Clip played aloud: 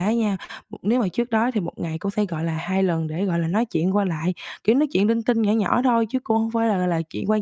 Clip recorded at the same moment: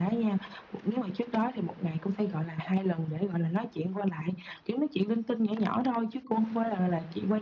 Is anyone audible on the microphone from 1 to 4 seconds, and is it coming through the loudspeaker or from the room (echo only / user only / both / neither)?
echo only